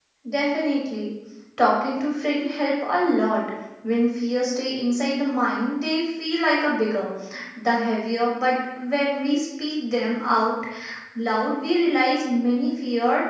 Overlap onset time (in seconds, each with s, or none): none